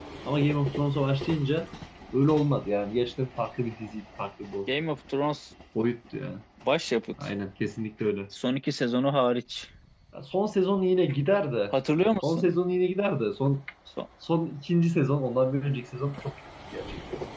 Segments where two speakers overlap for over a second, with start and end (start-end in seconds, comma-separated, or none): none